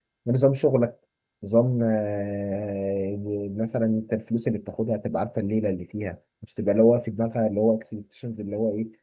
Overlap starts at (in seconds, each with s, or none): none